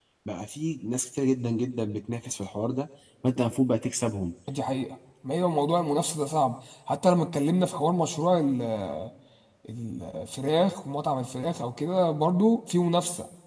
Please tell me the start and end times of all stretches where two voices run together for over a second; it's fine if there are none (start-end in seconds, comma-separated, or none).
none